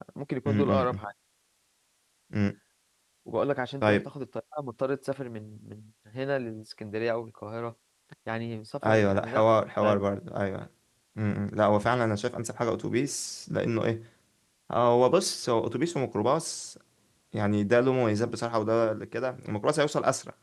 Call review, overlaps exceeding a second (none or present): none